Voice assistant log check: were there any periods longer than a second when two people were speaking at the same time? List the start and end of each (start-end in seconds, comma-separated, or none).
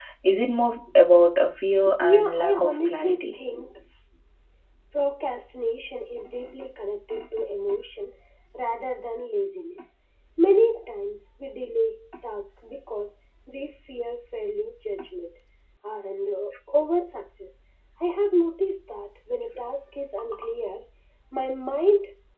2.0-3.4